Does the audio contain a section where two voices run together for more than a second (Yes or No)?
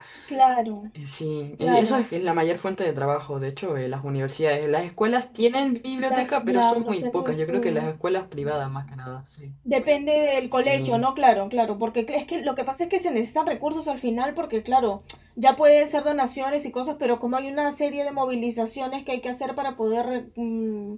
Yes